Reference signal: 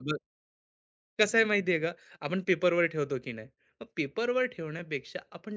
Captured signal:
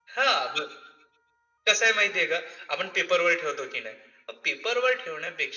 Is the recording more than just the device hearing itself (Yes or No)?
No